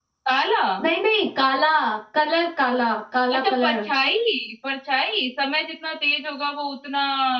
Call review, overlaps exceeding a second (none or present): none